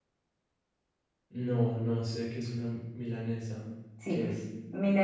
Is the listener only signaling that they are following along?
No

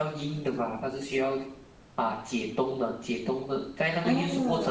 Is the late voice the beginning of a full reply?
No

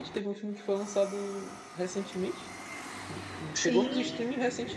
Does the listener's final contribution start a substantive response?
No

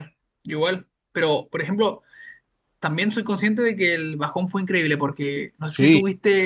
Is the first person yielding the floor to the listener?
No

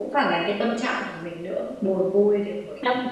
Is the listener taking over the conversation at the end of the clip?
Yes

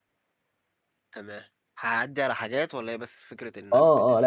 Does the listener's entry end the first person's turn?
Yes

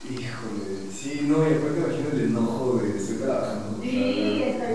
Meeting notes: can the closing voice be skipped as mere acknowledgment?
No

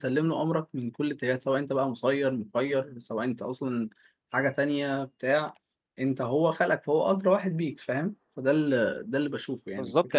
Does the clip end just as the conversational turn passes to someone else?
Yes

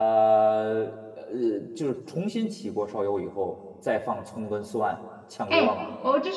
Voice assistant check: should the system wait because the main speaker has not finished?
No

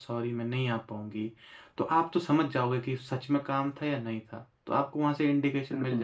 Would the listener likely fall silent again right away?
No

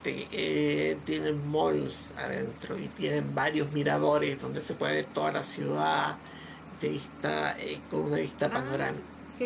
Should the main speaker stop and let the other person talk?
Yes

